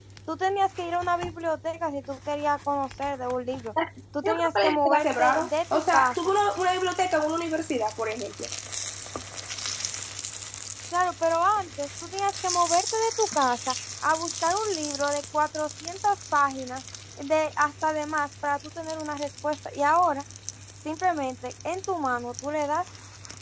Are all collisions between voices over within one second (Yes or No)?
No